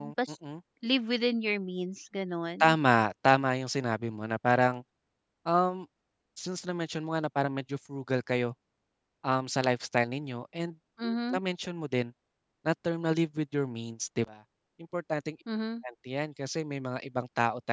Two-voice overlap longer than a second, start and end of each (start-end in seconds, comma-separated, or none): none